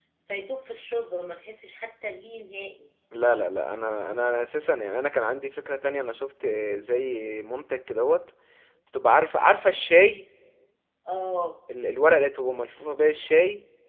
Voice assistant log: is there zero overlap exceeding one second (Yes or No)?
Yes